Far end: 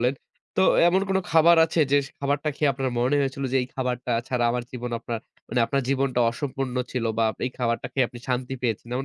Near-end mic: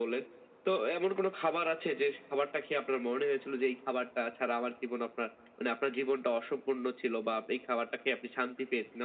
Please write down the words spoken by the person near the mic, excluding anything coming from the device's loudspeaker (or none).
none